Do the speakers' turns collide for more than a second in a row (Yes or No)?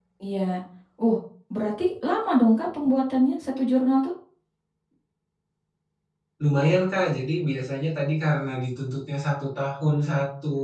No